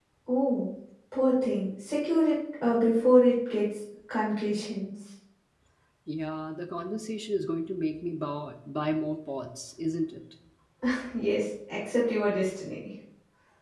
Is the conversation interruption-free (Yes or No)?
Yes